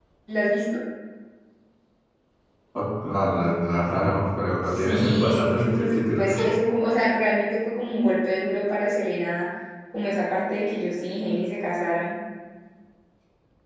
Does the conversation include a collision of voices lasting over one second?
Yes, from 4.7 s

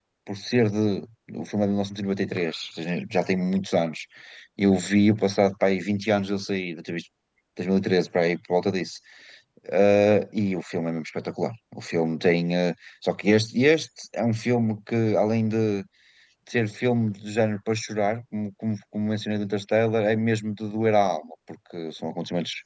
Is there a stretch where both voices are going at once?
No

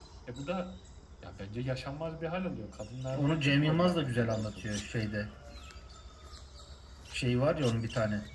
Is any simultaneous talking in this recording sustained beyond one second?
Yes, from 3.1 s

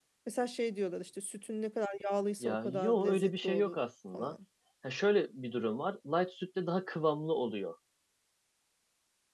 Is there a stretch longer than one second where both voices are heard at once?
Yes, from 2.4 s

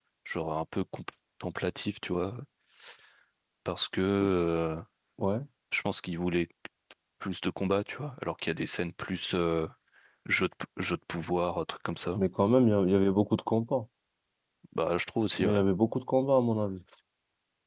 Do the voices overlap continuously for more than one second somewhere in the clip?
No

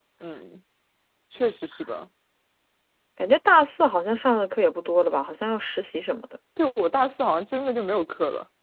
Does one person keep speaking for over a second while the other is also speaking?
No

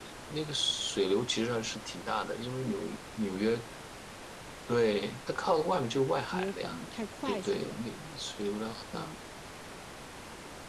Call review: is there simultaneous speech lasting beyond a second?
No

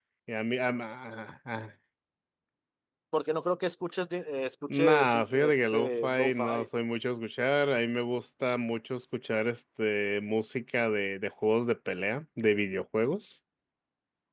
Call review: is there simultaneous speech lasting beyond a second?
Yes, from 4.7 s

